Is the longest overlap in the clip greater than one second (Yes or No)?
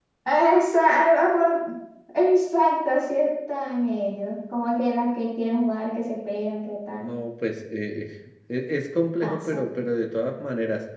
No